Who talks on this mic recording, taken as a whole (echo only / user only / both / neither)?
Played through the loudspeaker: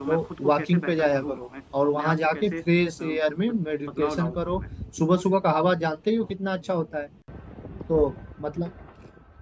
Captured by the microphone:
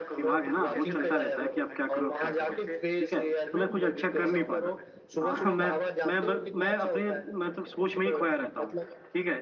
both